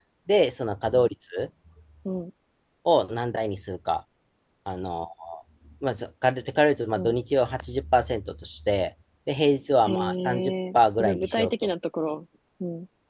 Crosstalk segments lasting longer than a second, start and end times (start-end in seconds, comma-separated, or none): 9.9-11.5